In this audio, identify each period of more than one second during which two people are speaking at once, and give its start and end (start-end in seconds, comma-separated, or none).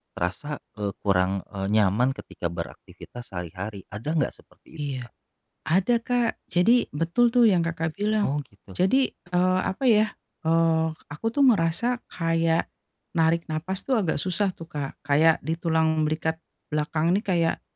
none